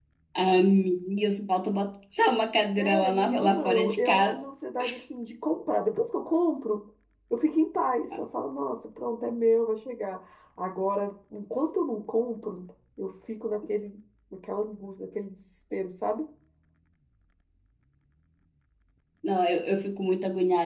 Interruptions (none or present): present